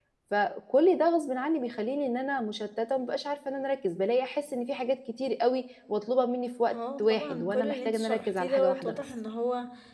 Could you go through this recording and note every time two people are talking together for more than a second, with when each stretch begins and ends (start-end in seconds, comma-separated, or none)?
6.7-9.0